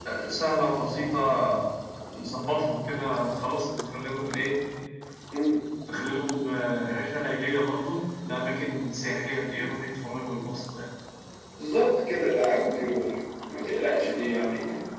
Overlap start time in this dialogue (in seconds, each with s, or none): none